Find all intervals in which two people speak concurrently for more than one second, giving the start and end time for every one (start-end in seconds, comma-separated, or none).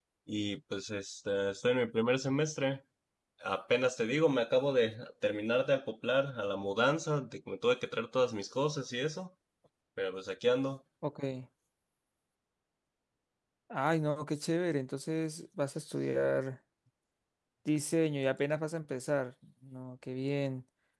none